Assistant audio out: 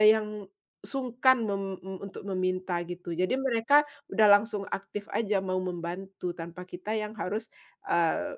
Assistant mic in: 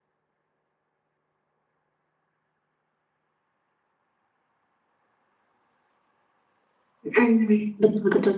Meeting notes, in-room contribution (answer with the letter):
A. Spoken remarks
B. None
A